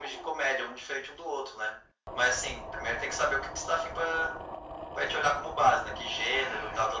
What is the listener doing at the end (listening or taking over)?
taking over